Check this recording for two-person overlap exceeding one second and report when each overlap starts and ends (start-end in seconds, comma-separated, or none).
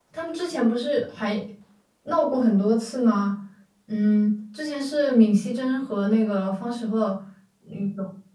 none